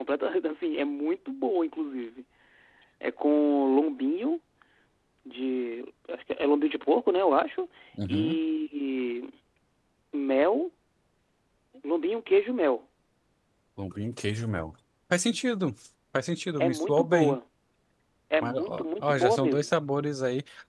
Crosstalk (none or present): present